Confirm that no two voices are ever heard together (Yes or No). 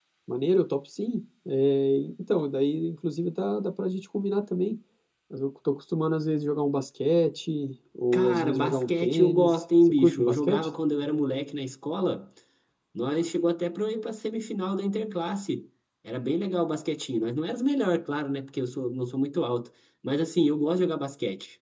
No